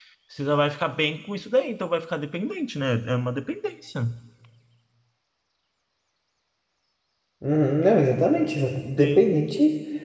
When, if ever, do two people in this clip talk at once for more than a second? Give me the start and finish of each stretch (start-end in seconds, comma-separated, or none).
none